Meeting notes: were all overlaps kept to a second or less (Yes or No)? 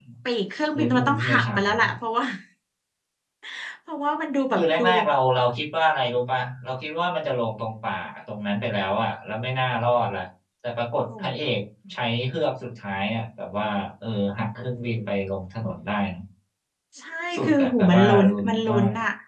No